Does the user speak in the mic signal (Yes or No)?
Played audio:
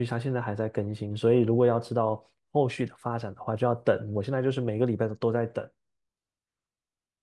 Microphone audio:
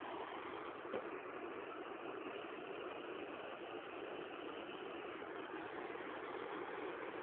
No